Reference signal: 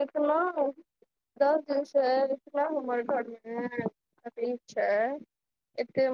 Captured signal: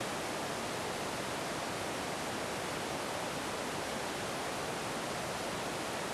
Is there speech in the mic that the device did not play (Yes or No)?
No